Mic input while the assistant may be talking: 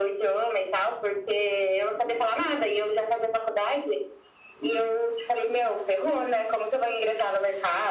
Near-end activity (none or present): none